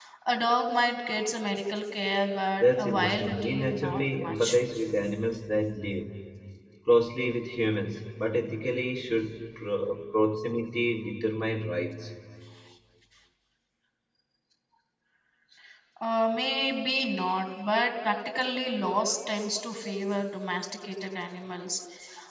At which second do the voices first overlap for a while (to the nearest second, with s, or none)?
3 s